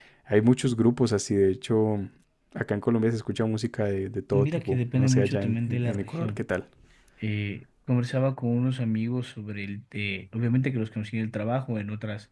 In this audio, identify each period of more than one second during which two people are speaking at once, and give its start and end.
4.3-6.4

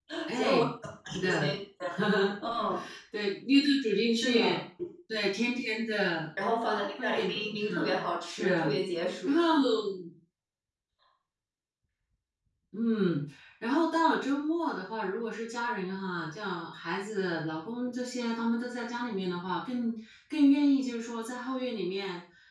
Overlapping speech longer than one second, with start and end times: 7.0-8.4

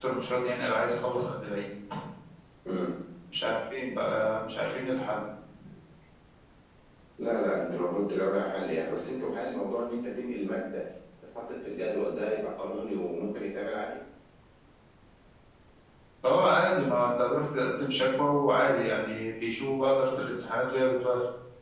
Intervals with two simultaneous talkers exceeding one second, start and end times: none

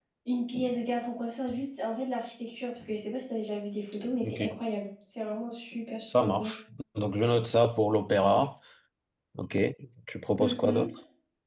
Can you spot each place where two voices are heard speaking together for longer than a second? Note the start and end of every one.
none

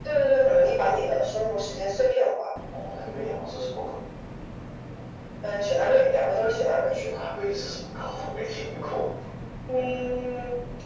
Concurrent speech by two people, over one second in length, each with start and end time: none

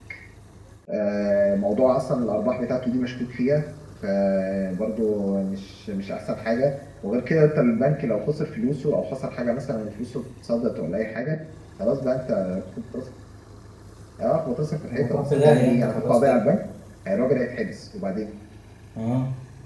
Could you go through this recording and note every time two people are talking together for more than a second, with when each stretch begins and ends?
14.9-16.4

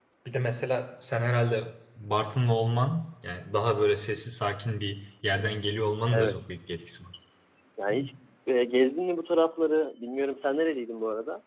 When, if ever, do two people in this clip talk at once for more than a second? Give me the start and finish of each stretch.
none

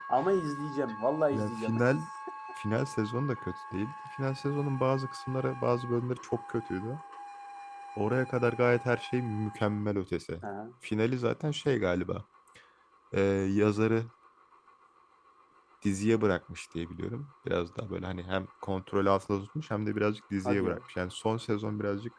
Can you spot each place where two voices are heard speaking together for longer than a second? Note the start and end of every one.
none

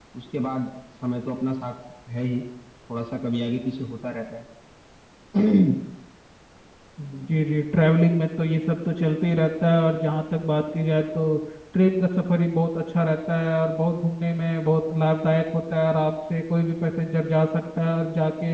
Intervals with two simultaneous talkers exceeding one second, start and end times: none

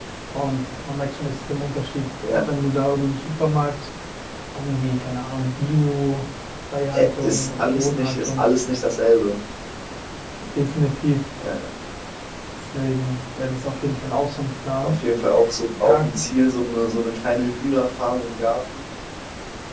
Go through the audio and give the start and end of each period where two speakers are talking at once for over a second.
6.9-8.4

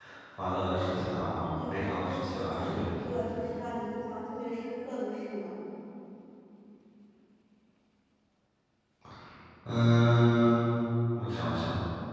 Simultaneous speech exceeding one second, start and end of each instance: 1.4-2.9

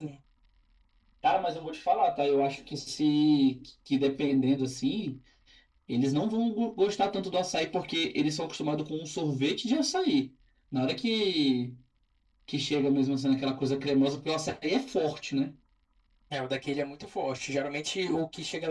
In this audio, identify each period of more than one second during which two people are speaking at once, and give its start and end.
none

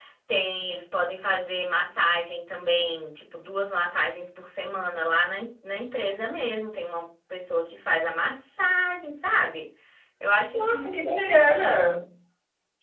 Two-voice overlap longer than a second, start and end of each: 10.5-11.8

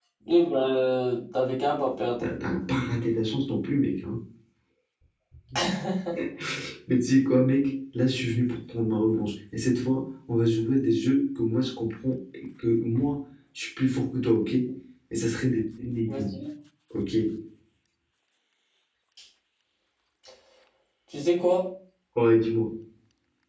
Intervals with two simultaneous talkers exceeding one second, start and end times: none

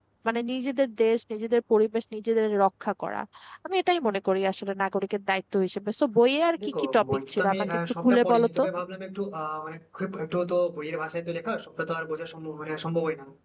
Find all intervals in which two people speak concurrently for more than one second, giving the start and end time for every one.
6.6-8.6

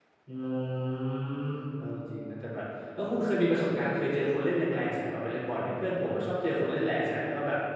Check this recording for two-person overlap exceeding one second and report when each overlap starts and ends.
none

